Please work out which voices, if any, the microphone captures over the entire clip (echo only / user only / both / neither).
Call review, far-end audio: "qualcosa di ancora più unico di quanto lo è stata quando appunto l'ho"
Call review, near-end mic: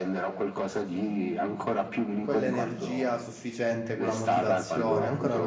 both